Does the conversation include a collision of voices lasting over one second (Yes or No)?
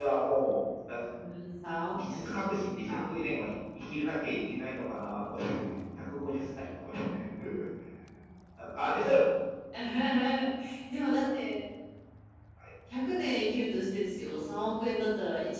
No